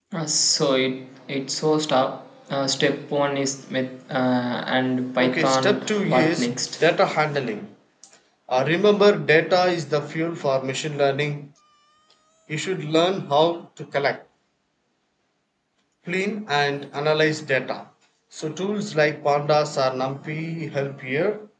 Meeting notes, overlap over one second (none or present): present